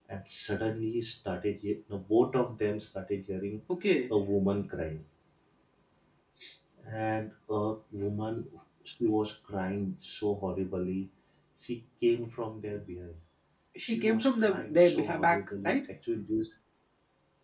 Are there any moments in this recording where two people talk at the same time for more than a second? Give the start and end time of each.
13.8-15.8

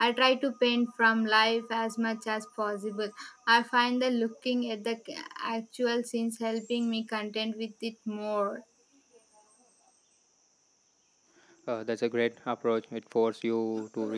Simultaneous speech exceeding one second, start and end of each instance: none

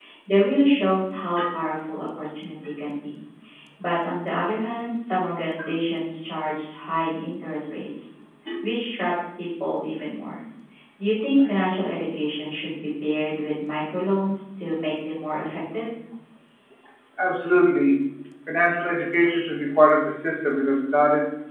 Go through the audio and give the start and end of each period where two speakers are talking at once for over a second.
none

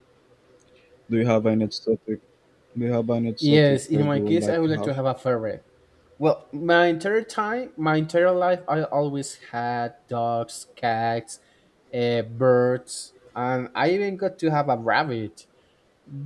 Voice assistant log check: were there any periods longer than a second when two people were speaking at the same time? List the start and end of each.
3.4-4.9

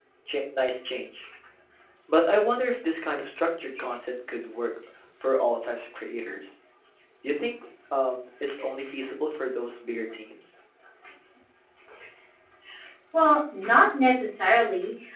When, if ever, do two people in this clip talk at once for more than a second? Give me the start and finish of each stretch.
none

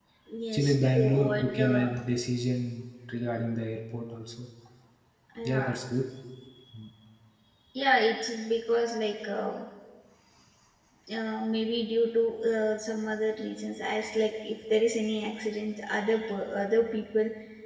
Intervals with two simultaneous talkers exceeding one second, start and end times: 0.5-1.9

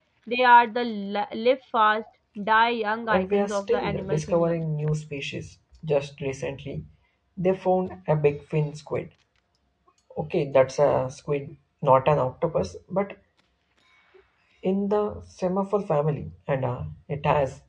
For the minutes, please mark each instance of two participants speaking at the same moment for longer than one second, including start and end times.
3.1-4.6

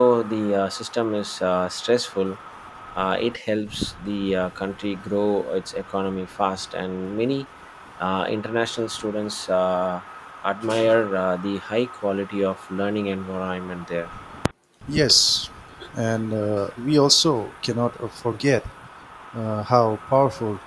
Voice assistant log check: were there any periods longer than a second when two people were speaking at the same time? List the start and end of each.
none

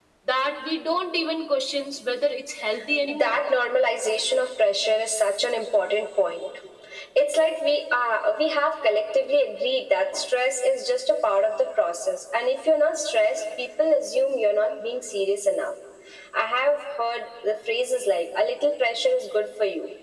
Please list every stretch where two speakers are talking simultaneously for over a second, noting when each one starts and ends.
none

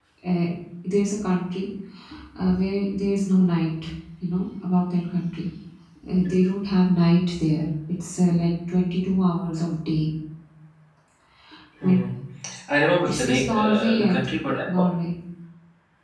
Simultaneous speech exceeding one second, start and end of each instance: 13.0-14.7

